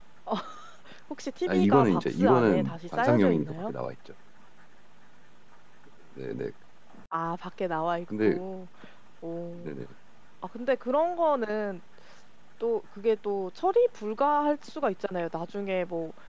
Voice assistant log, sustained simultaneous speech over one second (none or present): present